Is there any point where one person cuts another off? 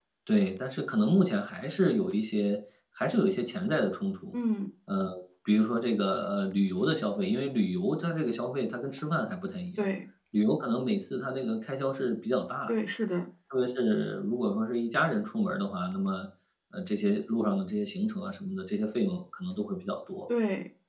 No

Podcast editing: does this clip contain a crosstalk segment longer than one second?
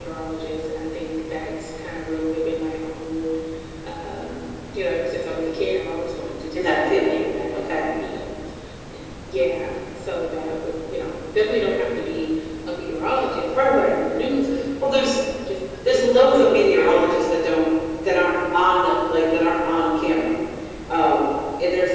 Yes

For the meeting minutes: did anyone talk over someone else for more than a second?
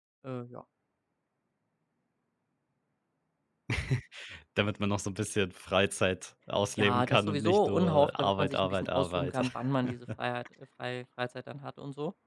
Yes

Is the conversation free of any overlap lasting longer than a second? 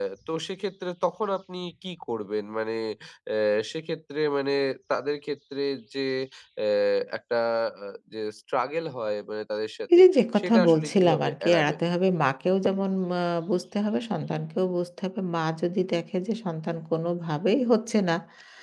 No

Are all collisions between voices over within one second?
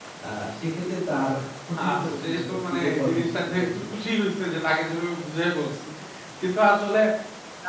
No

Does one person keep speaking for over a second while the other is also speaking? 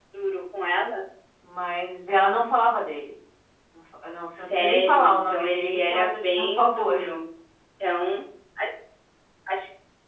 Yes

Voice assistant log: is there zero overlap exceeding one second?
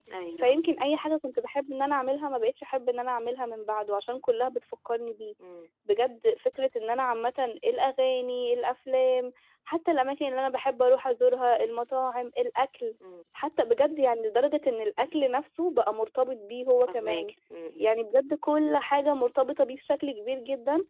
Yes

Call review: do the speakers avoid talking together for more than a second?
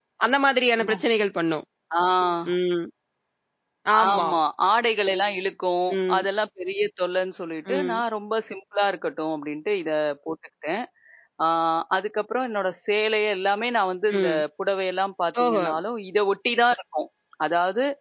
Yes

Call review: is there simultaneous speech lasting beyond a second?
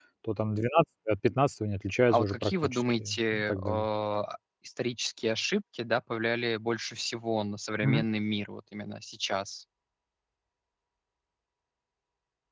Yes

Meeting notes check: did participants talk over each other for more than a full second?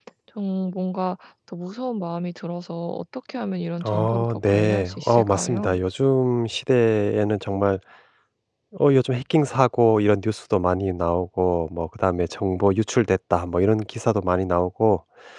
Yes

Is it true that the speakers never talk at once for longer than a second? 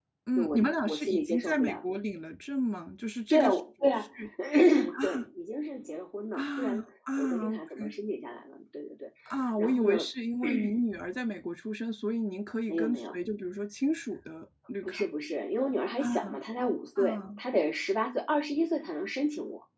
No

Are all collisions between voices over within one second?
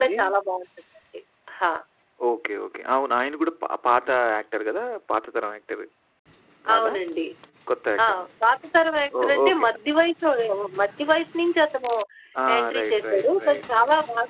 No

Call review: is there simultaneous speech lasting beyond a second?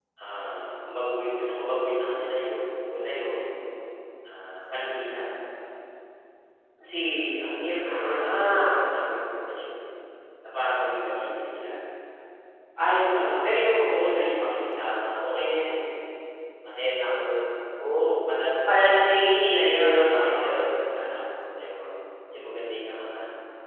Yes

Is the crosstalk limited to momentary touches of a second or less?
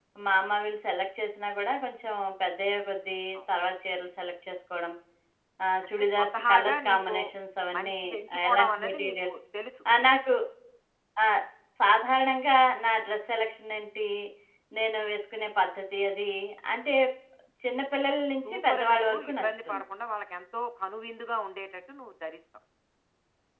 No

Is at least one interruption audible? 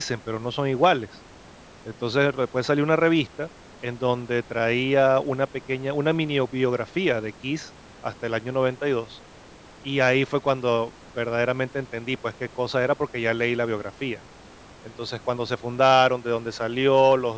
No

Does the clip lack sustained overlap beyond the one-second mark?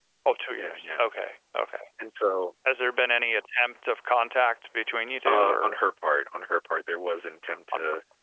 Yes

